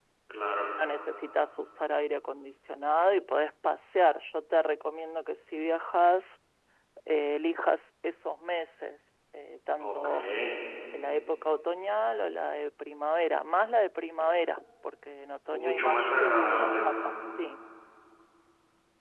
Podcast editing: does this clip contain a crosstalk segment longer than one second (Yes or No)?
Yes